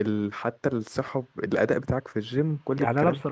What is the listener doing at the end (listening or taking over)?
taking over